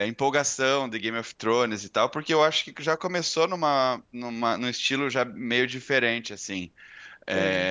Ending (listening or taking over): listening